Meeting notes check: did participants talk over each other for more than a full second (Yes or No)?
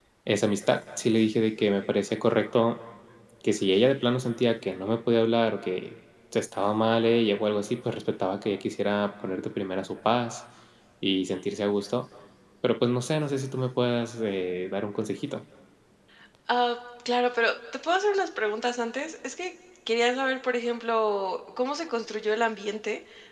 No